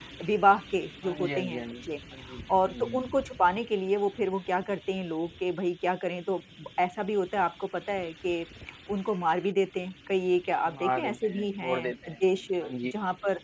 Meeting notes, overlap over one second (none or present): present